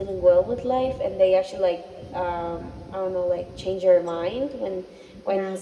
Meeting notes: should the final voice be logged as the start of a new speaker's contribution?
No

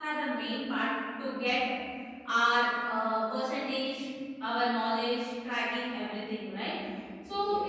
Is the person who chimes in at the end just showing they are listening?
Yes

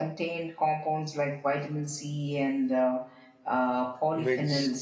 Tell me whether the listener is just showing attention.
No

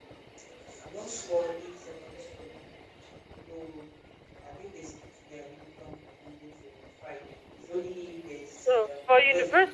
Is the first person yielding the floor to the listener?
Yes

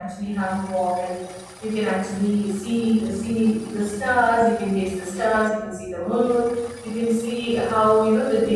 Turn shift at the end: No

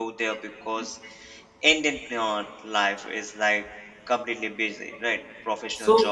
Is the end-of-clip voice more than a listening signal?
No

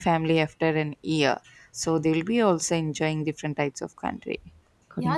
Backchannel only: No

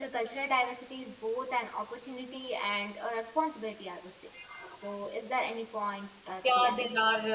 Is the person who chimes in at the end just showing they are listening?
No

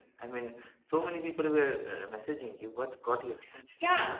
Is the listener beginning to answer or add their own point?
Yes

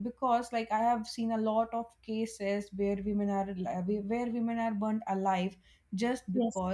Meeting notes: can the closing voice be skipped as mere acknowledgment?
Yes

